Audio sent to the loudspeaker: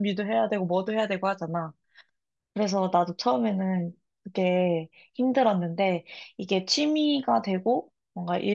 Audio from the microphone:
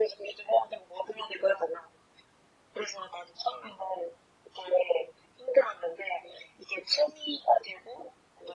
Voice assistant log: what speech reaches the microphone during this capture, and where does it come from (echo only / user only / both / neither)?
echo only